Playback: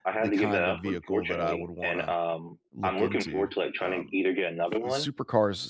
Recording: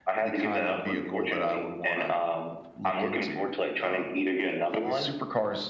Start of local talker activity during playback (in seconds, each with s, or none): none